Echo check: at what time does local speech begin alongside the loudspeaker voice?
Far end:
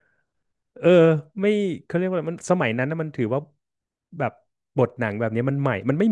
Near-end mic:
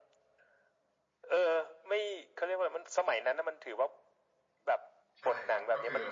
5 s

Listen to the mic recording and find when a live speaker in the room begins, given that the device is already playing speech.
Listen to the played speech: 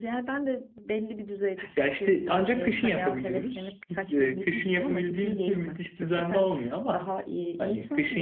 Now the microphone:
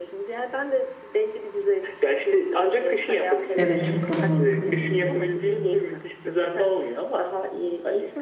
4 s

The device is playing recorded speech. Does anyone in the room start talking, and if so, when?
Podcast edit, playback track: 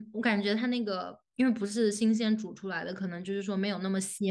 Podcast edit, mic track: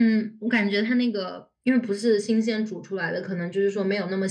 none

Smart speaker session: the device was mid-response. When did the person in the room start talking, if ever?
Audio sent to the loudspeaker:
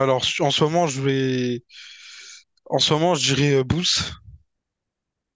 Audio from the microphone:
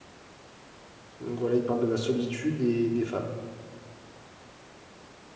1 s

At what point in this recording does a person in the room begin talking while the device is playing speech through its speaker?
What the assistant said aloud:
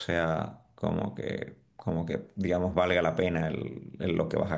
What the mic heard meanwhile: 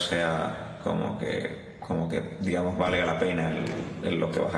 none

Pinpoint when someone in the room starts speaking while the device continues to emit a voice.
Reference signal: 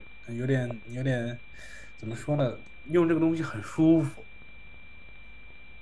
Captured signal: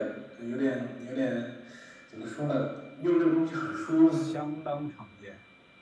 4 s

